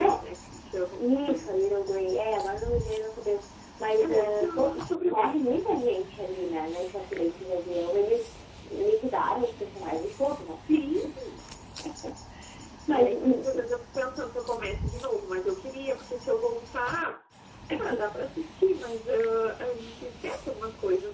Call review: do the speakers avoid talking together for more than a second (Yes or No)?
No